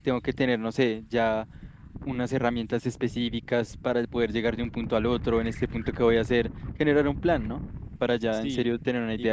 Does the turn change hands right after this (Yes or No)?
Yes